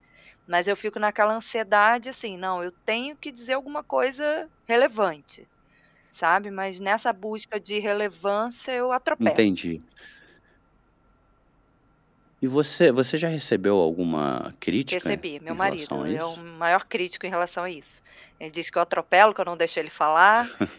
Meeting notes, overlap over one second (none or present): present